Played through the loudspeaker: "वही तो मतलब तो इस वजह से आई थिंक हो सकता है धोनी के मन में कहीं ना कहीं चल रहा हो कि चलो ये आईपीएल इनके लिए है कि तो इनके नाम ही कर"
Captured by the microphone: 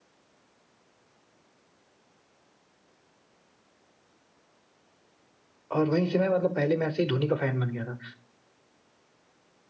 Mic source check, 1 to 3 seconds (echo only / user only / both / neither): neither